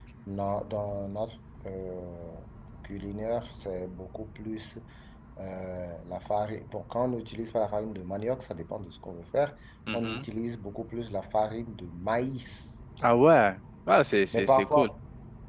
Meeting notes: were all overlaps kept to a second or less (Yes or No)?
Yes